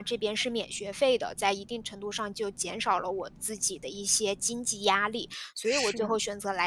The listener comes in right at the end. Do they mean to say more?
No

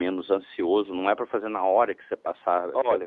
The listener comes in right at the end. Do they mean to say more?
Yes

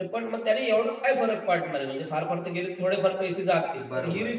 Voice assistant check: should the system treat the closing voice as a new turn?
No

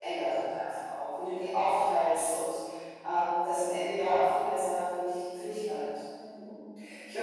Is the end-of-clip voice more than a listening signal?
Yes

